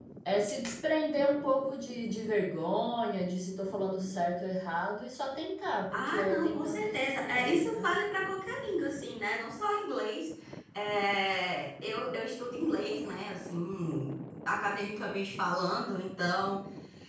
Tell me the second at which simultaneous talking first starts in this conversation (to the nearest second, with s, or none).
6 s